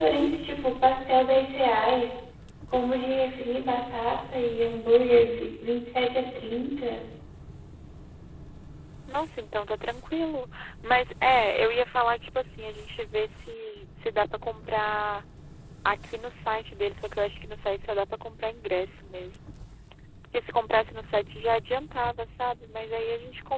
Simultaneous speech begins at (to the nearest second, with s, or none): none